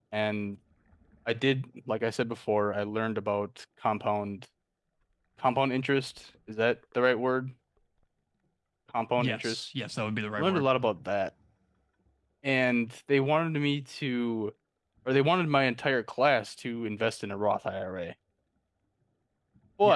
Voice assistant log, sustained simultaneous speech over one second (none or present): none